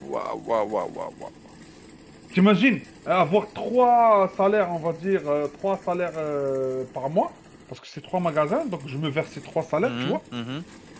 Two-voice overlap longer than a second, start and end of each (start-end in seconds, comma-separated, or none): none